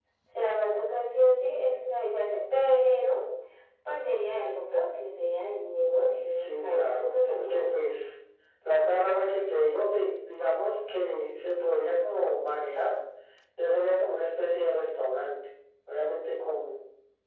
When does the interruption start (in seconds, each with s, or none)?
6.3 s